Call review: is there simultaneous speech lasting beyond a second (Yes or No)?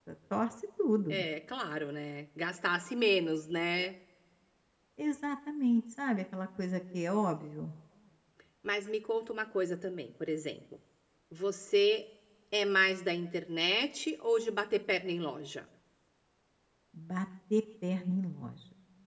No